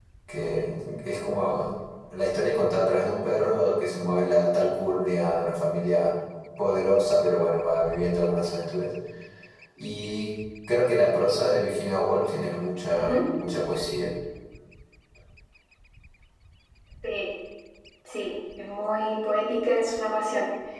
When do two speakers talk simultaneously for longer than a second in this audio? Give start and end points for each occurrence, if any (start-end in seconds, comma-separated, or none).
none